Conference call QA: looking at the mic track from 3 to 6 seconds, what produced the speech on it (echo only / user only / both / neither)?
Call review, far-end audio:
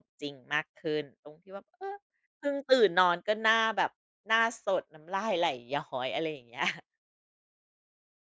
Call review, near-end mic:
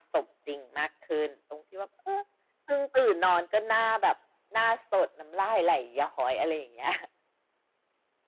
echo only